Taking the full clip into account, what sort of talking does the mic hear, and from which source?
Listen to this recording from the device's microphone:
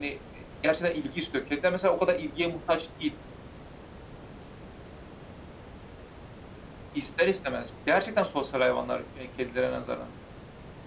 echo only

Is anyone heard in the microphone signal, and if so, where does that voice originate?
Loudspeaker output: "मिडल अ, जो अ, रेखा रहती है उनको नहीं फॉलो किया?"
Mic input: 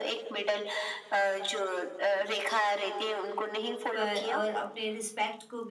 both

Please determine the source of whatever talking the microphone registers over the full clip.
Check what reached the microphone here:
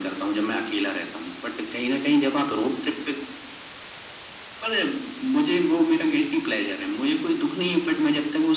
echo only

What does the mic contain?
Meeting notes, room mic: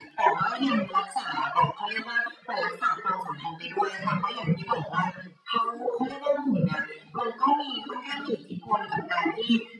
echo only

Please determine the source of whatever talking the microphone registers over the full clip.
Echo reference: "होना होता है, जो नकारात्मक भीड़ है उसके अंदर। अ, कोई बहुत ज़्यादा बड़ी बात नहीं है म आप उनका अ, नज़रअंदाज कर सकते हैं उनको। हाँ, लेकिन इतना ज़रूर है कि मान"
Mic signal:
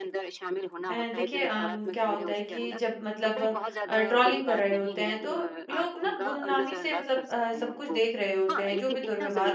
both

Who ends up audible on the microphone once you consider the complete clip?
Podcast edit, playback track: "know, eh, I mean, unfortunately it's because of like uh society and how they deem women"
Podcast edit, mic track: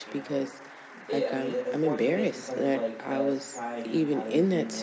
both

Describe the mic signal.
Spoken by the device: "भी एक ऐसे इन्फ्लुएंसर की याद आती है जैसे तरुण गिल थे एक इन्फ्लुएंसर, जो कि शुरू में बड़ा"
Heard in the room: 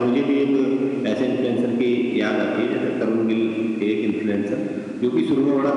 echo only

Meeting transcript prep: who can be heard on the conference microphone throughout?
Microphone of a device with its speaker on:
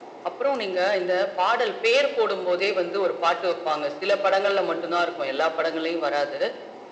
echo only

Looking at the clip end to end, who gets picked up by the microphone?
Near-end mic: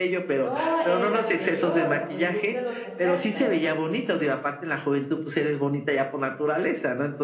both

